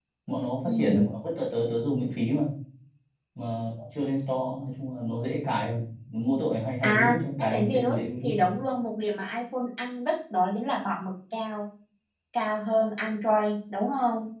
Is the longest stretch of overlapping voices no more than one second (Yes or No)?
No